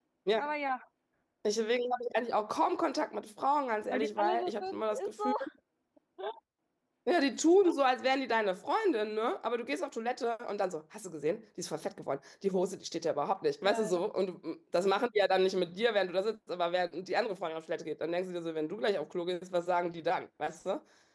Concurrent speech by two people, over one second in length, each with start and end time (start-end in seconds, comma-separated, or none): 3.9-5.3